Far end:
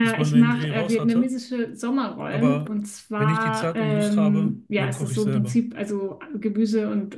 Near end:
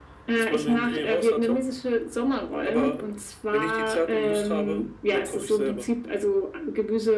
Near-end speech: none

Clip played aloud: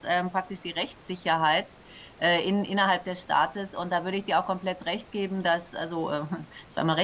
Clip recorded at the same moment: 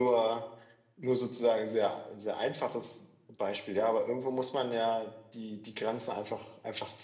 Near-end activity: present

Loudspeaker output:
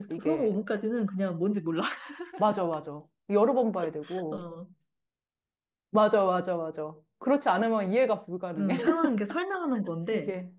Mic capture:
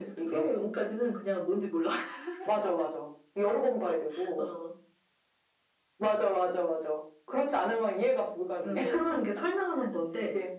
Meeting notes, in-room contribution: none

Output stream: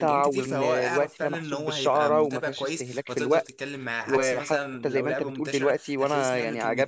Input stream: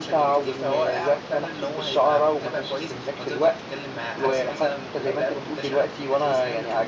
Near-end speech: none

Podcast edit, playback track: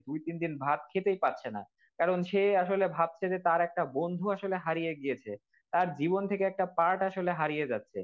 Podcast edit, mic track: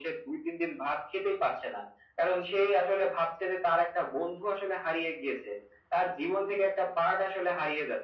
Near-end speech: none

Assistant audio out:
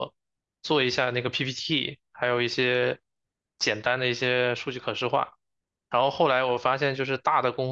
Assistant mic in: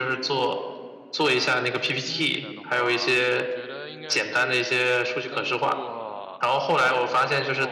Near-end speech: present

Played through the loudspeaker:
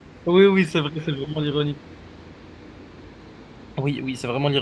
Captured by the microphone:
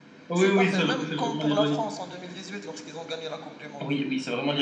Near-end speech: present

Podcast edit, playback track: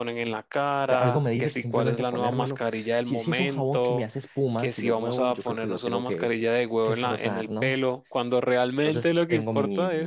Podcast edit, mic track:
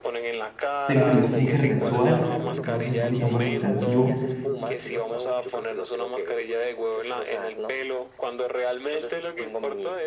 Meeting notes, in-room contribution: present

